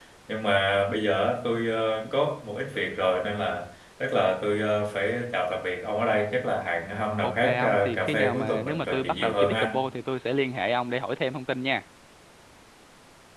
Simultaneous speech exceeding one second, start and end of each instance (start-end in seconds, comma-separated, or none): 7.2-9.8